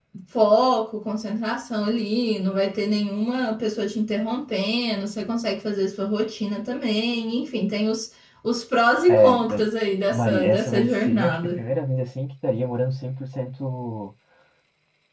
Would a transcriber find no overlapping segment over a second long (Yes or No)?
No